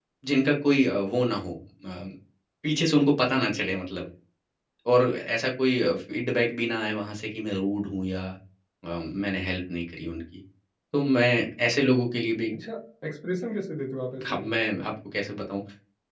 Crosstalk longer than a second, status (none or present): none